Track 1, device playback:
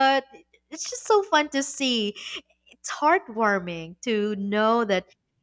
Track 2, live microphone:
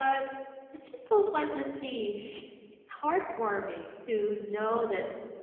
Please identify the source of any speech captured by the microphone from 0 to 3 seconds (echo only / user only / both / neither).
echo only